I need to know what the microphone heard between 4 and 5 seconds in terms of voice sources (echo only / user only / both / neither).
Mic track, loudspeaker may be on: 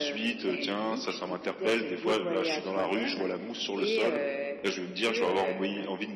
echo only